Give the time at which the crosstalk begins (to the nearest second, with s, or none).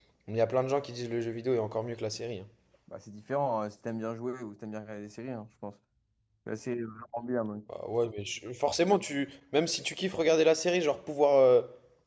none